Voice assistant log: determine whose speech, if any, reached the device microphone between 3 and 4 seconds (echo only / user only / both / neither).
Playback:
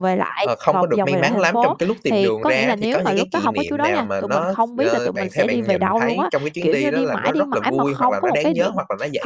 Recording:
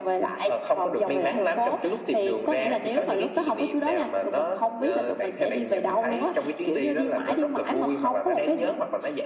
echo only